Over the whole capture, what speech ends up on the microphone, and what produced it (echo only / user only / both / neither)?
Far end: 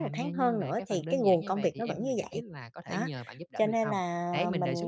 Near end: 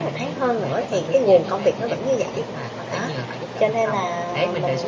echo only